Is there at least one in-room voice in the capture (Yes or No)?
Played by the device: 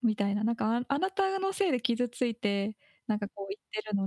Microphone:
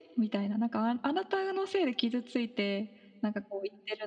No